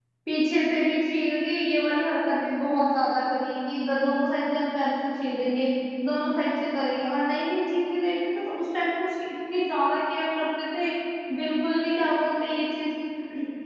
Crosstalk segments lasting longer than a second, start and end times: none

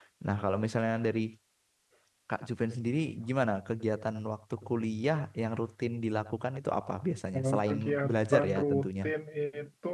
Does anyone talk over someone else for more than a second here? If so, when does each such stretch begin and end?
7.3-9.1

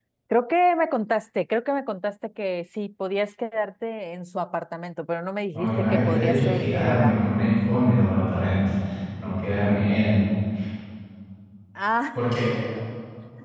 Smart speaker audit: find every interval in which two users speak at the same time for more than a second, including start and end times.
5.5-7.2

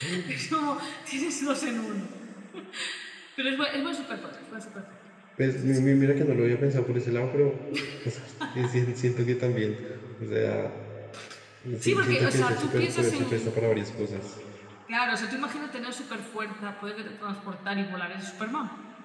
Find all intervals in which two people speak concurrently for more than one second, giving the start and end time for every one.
11.8-13.6

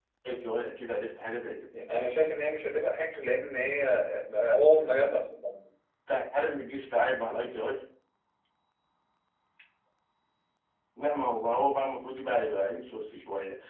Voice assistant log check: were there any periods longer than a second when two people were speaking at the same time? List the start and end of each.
none

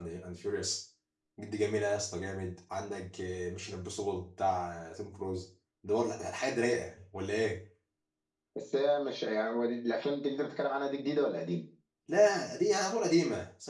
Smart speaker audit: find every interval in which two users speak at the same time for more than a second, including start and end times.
none

